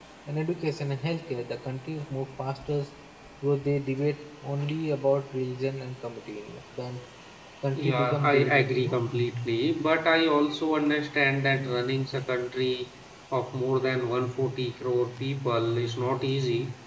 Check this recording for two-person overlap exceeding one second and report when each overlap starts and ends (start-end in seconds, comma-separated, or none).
7.8-9.0